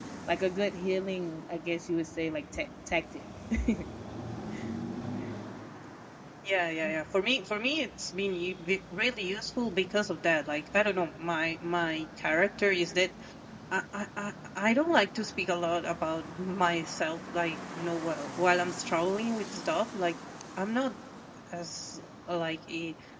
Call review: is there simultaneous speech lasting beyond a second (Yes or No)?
No